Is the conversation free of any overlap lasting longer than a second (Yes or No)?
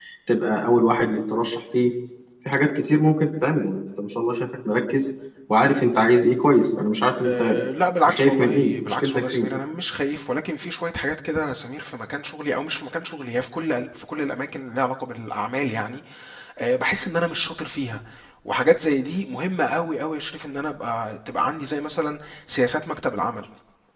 No